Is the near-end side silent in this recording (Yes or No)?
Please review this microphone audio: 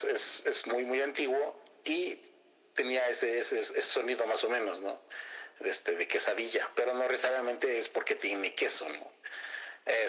Yes